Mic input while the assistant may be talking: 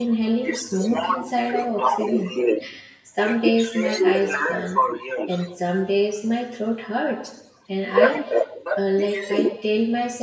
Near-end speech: present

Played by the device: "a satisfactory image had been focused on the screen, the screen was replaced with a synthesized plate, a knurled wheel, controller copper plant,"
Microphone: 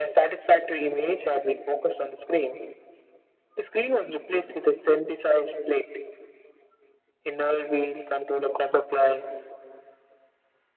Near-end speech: none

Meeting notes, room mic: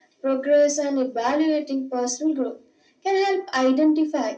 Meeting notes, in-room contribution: none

